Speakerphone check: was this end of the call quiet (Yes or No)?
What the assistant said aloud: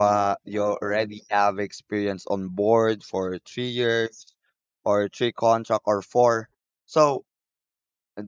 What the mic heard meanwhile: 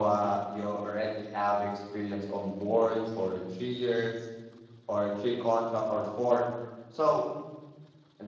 Yes